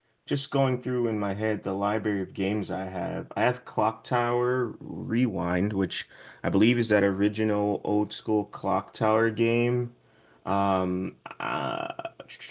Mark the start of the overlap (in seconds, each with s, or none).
none